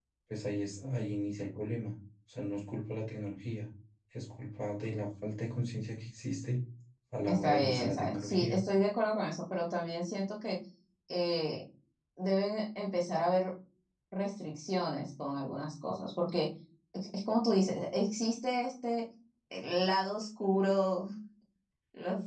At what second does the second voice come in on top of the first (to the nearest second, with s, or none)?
7 s